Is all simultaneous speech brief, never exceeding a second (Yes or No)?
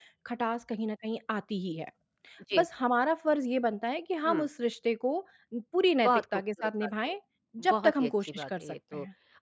No